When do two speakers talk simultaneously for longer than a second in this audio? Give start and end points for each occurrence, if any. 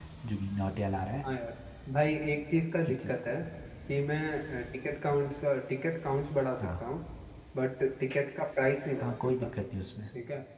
none

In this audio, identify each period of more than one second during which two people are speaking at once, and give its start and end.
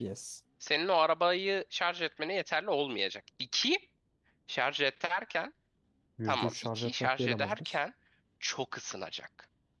6.3-7.8

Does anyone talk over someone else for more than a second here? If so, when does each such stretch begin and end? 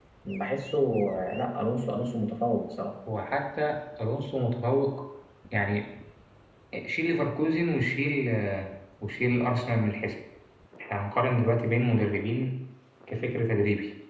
none

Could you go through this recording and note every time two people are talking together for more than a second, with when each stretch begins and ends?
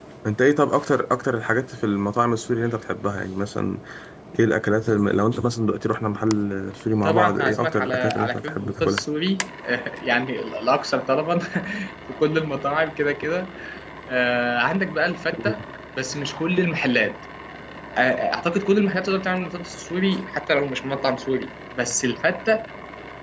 7.0-9.0

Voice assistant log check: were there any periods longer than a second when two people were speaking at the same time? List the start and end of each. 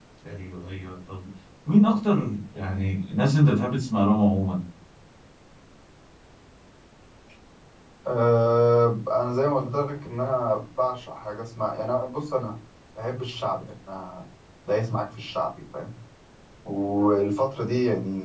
none

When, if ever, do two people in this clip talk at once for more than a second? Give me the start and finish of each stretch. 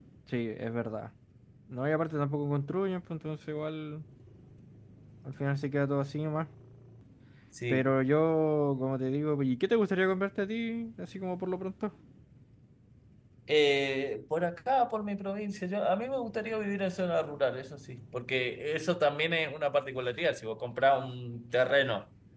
none

